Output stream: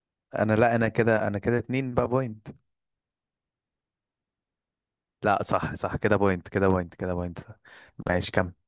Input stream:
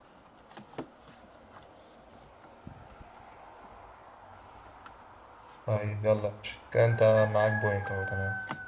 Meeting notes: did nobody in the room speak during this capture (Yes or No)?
No